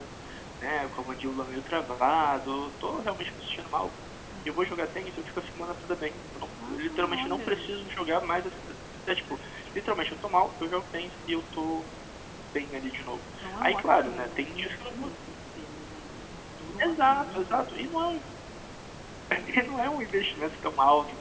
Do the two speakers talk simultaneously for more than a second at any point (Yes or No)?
Yes